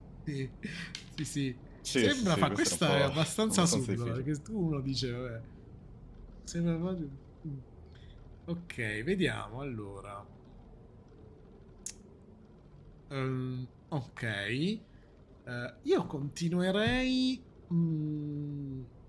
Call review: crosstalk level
present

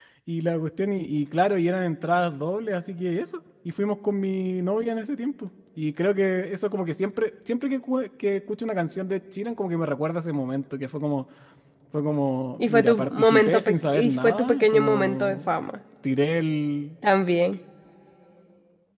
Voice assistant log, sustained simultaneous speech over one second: present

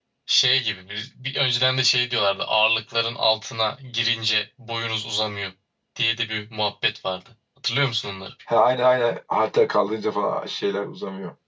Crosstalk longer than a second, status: none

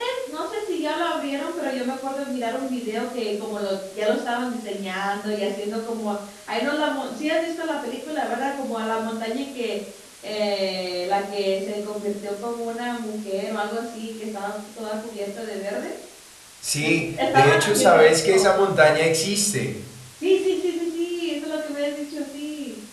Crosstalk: present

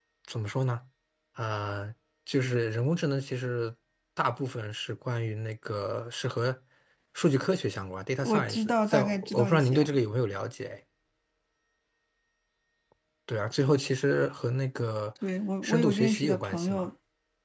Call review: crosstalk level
present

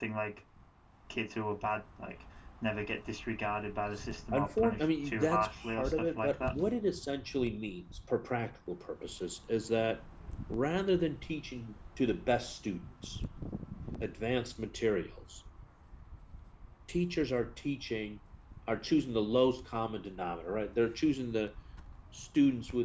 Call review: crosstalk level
present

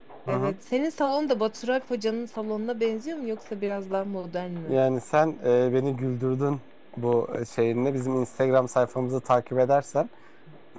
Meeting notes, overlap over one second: none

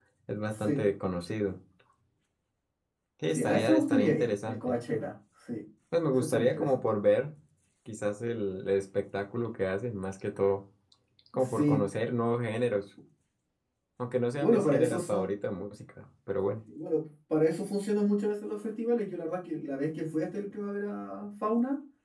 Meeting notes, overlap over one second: present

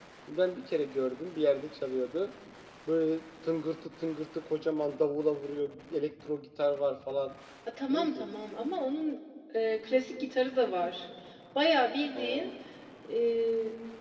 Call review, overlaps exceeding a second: none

